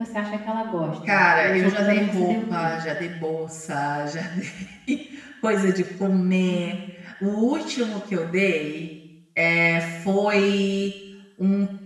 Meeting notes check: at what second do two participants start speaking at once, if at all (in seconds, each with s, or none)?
1.1 s